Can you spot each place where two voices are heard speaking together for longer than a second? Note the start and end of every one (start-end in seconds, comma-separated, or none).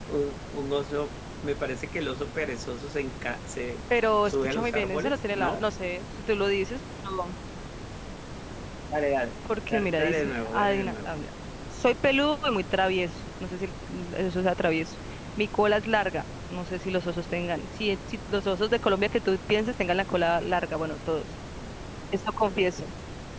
4.2-5.6, 9.7-11.1